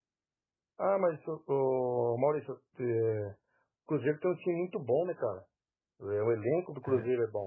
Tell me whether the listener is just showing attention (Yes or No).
Yes